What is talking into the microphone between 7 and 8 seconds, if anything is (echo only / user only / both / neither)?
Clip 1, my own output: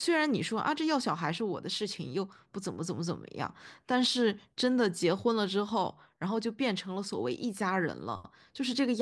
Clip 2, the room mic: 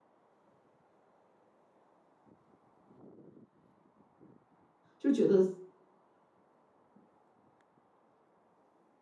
neither